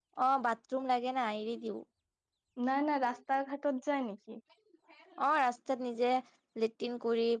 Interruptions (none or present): none